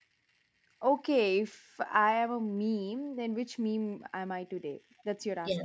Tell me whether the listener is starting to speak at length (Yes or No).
Yes